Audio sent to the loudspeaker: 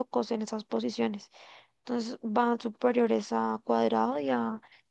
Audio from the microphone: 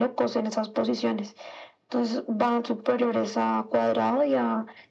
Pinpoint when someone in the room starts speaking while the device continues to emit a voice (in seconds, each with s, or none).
none